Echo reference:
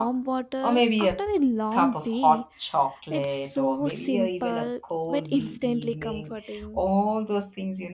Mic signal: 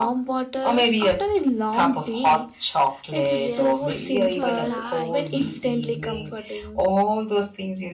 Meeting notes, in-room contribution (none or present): present